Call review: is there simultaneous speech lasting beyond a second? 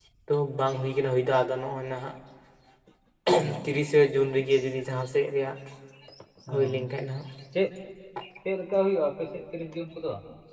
No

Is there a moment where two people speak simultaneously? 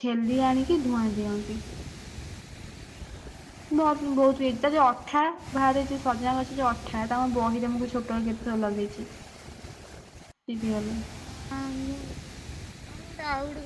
No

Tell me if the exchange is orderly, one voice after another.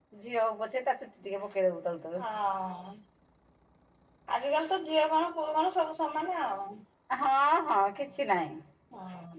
Yes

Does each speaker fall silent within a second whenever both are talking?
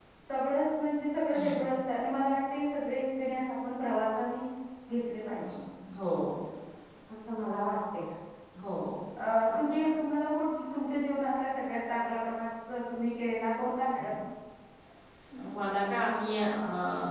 Yes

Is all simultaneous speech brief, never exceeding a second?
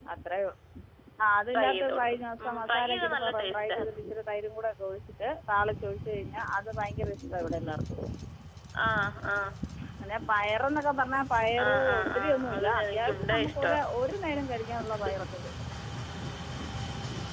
No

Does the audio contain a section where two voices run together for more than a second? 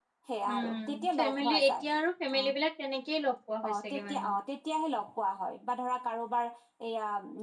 Yes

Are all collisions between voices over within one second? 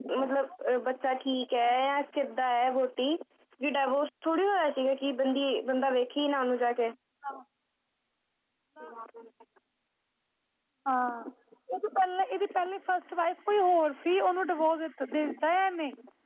Yes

